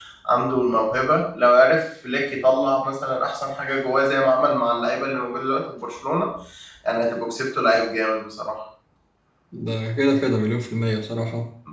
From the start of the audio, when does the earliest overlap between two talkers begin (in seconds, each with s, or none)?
none